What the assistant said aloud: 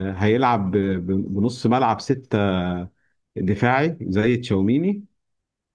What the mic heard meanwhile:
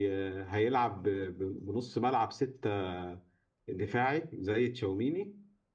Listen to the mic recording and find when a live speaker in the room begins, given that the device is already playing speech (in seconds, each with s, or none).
none